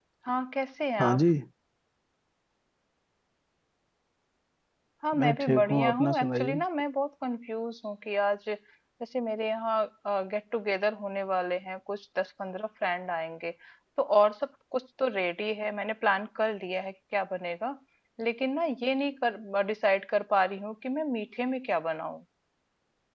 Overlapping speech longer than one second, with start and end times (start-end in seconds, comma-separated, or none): 5.2-6.6